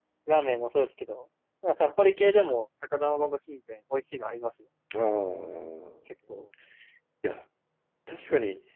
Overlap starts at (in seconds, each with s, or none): none